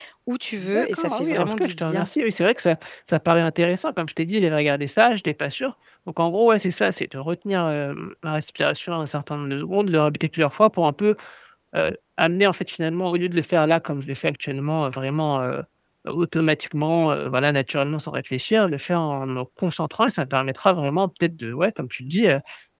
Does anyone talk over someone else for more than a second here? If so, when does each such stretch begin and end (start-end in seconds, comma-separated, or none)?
0.6-2.1